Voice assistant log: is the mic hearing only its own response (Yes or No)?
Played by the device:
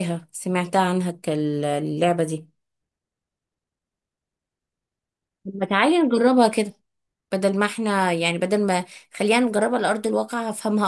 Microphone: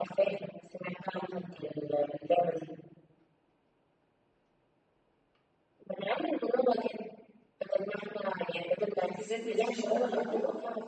No